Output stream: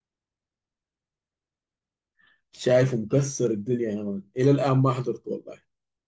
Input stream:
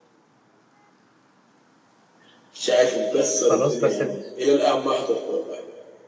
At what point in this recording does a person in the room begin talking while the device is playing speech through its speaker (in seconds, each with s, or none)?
3.4 s